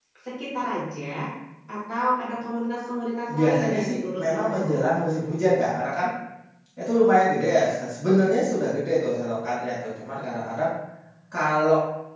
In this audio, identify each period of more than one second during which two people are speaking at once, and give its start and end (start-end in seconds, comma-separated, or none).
3.3-4.8